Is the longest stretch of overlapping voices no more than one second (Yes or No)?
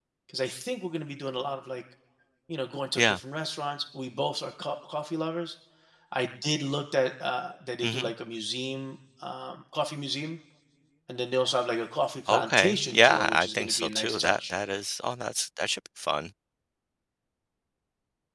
No